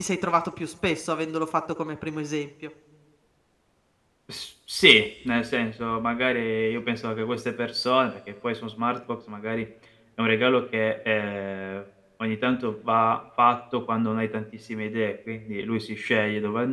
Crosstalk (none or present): none